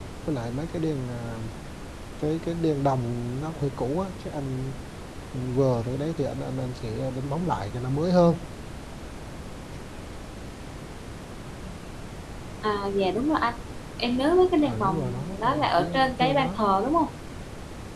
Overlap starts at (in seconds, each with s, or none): 14.6 s